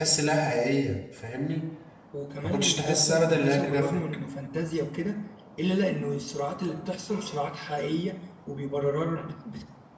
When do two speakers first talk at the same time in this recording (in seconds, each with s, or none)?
2.4 s